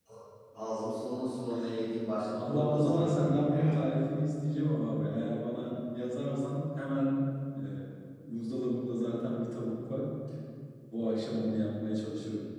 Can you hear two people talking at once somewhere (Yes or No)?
Yes